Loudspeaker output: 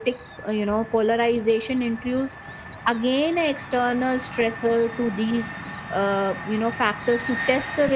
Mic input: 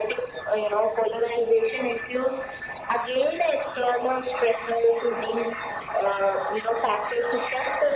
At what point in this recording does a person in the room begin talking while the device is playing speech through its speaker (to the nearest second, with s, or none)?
none